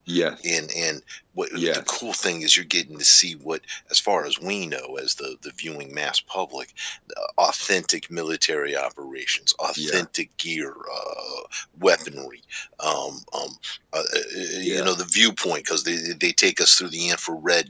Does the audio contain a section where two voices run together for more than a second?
No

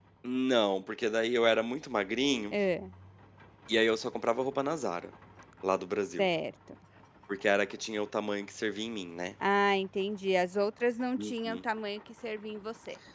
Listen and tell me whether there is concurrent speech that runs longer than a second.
No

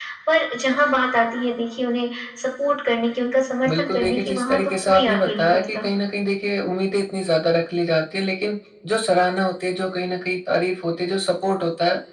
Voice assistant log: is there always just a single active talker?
No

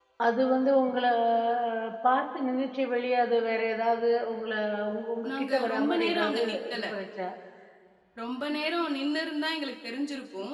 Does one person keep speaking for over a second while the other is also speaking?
Yes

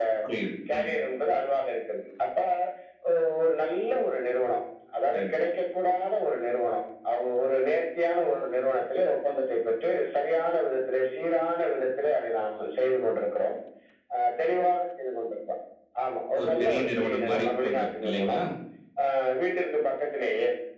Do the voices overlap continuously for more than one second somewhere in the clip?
Yes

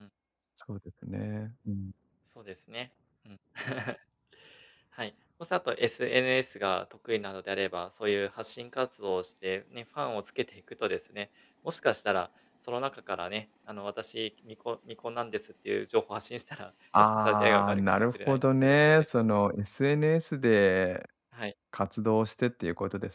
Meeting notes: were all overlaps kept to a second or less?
No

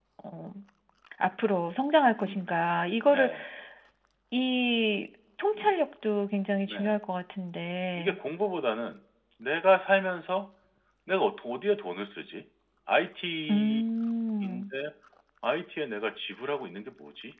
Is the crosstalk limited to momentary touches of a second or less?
Yes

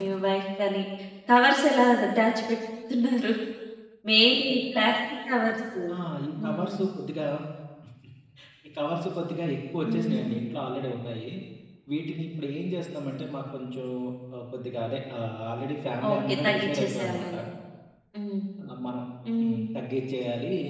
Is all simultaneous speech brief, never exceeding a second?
No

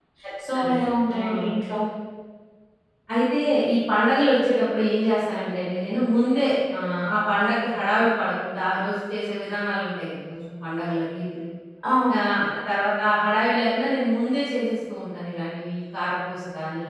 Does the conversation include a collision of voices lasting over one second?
No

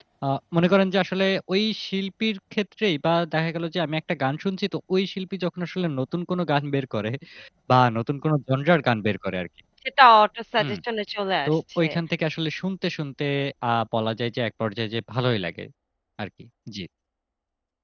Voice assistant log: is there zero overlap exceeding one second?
Yes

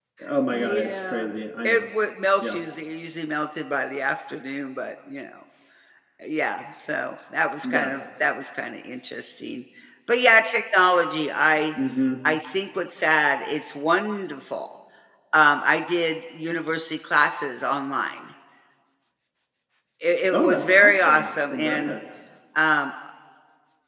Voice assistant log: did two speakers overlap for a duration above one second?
Yes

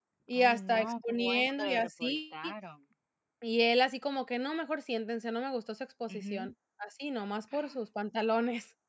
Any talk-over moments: Yes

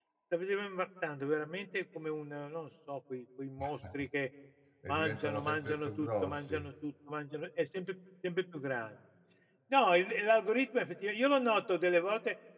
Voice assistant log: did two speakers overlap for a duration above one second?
Yes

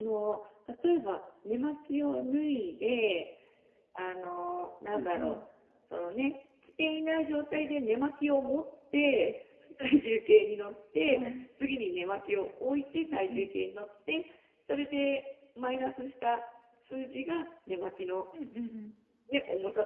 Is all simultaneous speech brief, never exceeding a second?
Yes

